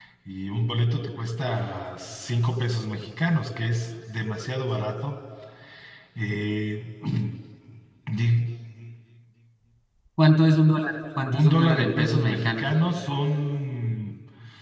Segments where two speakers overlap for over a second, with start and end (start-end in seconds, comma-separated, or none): 11.3-12.7